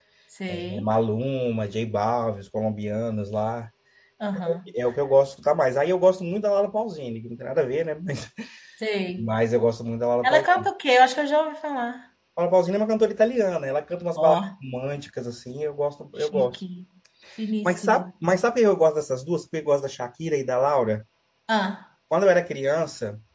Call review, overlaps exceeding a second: none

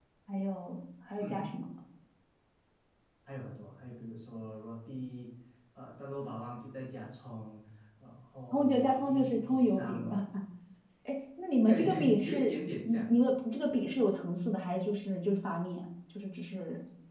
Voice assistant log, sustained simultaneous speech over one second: present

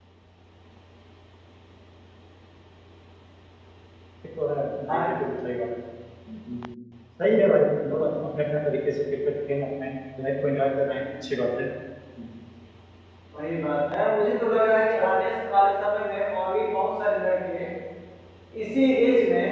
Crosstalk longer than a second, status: none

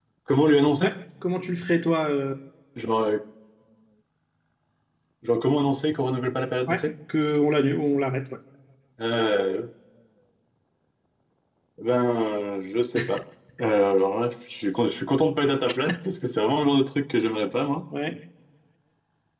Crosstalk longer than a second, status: none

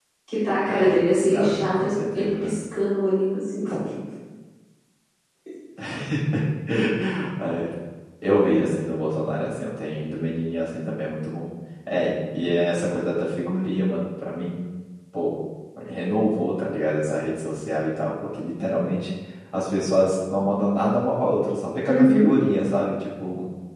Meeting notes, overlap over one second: present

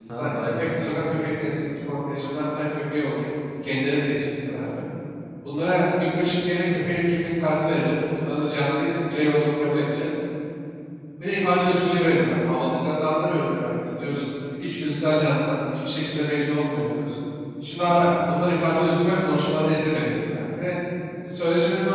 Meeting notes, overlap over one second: present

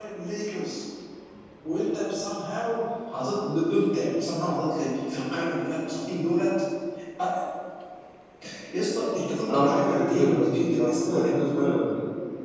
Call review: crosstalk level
present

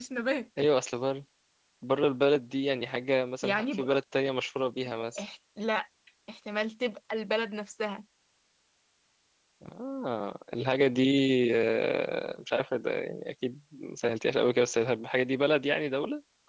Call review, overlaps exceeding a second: none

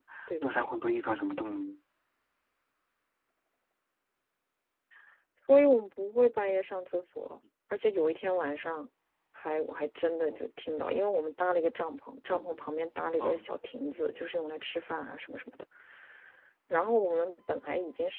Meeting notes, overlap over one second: none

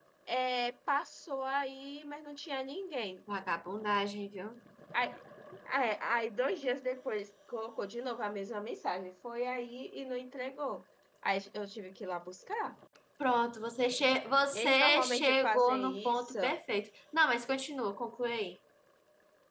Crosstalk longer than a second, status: present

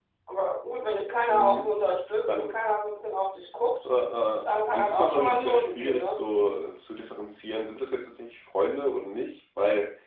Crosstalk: present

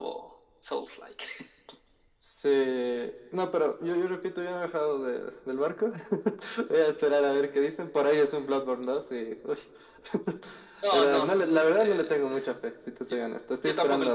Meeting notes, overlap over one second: present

